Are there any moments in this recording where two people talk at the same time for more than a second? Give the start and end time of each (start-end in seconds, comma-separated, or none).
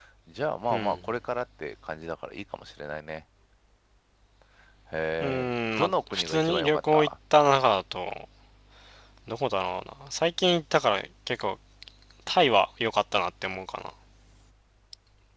5.2-7.1